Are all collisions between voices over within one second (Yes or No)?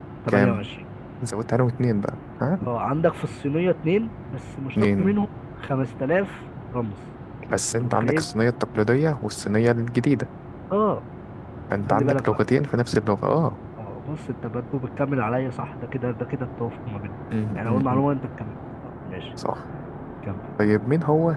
Yes